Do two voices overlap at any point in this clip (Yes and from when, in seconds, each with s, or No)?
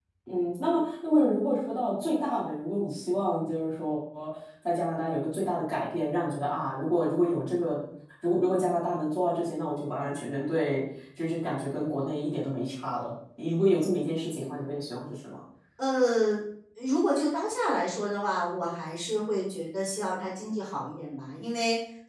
No